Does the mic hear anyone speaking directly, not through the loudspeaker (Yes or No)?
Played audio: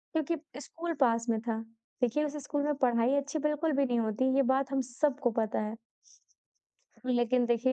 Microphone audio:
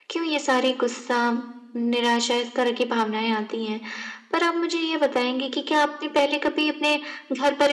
Yes